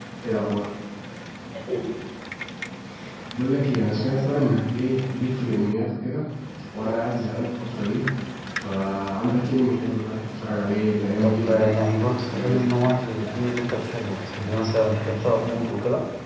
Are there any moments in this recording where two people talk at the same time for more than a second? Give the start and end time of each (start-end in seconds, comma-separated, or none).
11.2-12.6